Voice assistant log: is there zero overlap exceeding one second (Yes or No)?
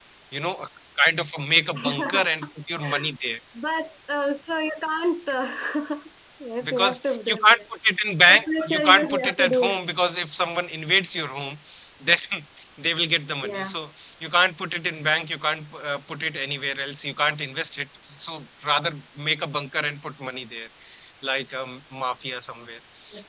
No